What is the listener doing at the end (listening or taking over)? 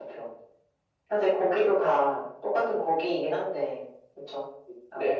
taking over